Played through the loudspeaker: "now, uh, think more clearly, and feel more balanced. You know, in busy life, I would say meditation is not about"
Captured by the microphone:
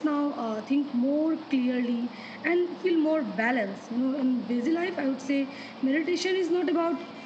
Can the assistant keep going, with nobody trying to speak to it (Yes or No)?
Yes